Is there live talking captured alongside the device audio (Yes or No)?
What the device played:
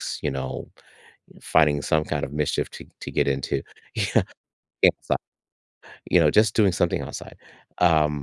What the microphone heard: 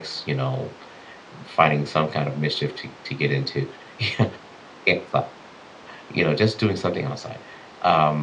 No